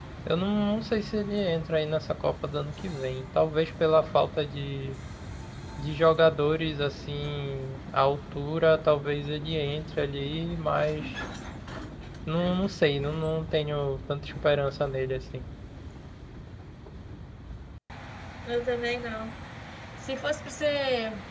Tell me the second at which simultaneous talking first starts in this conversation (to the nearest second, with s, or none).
none